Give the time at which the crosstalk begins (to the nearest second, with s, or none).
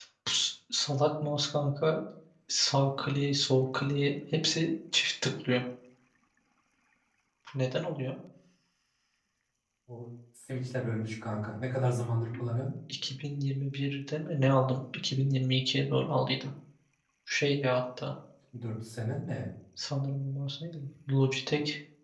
none